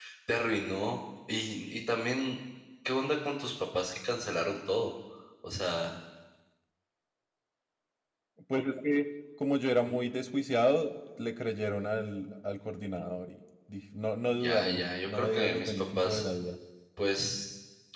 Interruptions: present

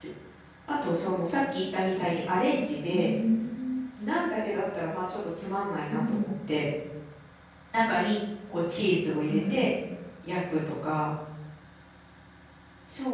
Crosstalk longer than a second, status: none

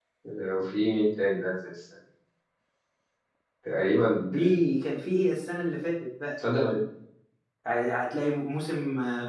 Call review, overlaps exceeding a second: none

